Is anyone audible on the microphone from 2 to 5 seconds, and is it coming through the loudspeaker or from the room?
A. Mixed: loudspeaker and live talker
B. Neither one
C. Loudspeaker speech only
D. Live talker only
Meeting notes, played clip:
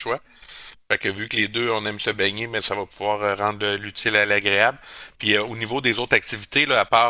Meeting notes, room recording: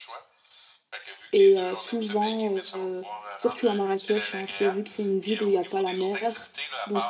A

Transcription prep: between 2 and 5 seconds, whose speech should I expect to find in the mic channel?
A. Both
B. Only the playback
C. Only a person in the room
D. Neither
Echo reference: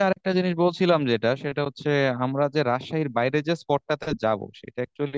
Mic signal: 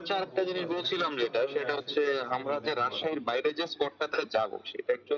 A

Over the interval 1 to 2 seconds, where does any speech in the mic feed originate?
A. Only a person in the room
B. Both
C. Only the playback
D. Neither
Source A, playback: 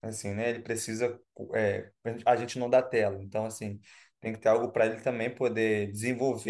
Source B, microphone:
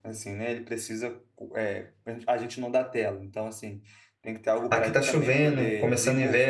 C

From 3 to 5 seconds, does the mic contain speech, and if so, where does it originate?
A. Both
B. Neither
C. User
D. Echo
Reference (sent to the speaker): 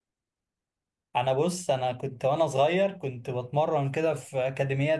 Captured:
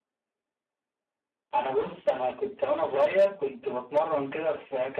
D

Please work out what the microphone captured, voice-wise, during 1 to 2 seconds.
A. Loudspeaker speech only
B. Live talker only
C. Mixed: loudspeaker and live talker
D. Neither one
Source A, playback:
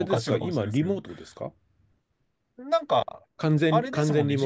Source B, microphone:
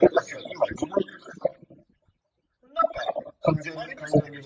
A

